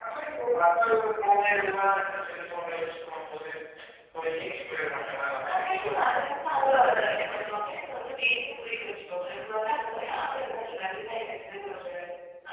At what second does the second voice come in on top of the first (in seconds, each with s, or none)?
5.4 s